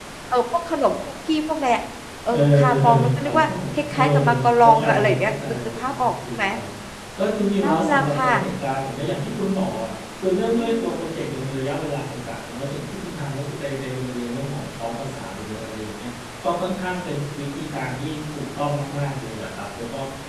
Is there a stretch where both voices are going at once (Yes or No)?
Yes